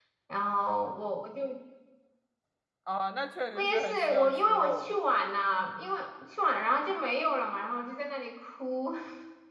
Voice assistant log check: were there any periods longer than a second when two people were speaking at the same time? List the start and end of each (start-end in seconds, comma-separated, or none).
3.5-5.0